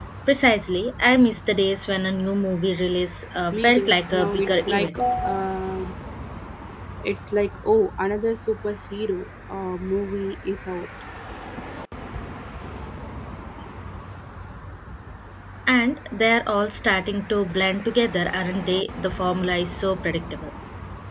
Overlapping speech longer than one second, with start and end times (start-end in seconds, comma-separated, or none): 3.5-5.0